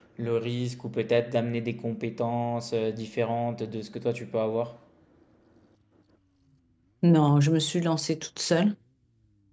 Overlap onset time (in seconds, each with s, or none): none